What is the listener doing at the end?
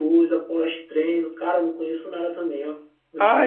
taking over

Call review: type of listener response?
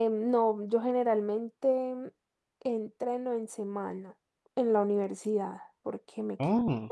listening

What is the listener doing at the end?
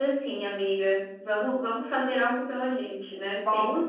taking over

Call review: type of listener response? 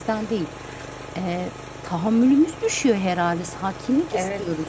taking over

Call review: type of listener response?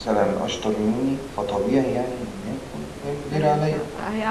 taking over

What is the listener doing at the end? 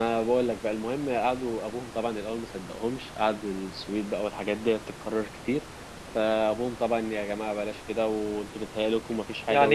taking over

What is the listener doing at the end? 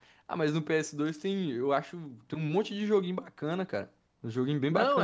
taking over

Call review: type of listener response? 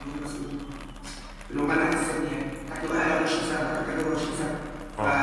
listening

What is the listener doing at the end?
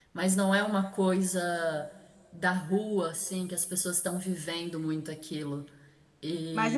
taking over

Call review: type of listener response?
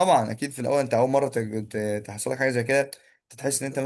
listening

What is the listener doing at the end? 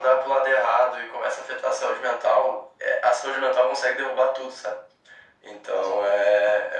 listening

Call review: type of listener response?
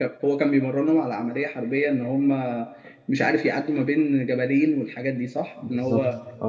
taking over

